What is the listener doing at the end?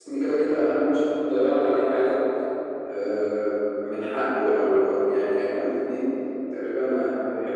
listening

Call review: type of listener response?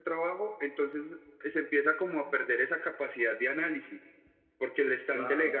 listening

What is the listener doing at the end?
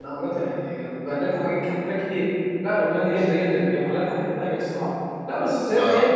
listening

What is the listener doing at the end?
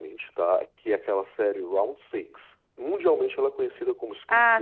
taking over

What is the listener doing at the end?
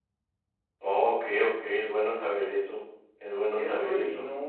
taking over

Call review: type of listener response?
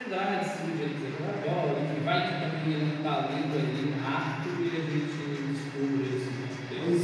taking over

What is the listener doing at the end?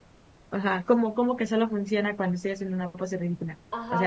taking over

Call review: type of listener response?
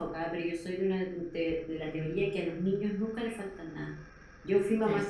listening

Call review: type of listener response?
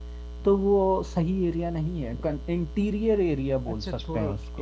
taking over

